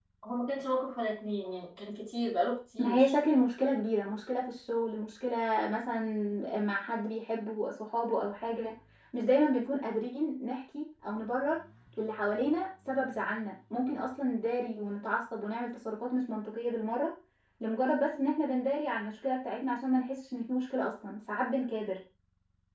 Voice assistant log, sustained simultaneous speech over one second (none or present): none